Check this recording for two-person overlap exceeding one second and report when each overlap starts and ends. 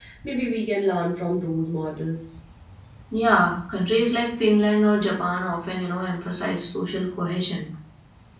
none

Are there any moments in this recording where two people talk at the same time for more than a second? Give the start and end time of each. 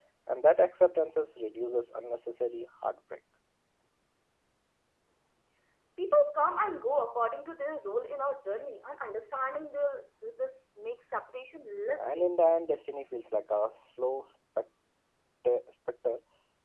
none

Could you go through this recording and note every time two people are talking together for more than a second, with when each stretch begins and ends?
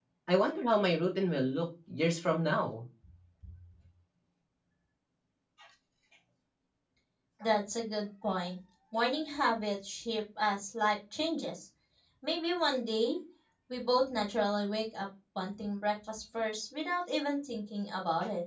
none

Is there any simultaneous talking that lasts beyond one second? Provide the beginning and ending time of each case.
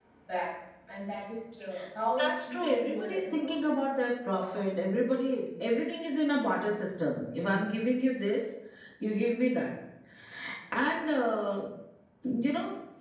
2.2-3.7

